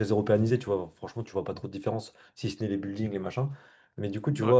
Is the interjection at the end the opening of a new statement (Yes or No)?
No